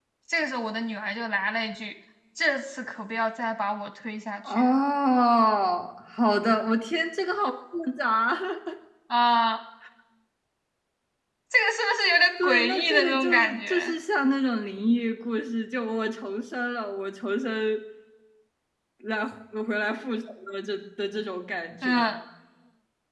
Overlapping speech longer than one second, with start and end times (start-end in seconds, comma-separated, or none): 12.4-13.9